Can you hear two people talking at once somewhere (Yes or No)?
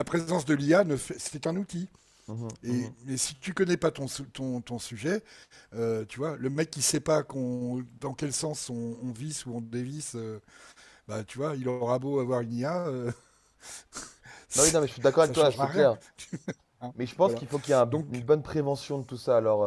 Yes